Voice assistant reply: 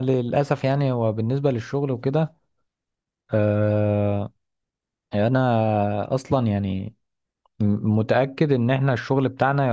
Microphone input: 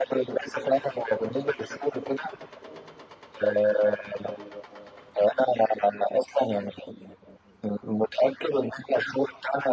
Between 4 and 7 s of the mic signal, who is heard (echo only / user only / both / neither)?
echo only